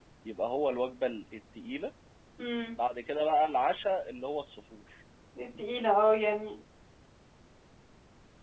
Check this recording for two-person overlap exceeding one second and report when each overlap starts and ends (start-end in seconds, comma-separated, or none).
none